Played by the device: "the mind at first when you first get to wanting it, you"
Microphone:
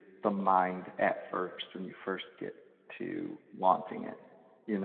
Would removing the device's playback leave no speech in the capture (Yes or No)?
Yes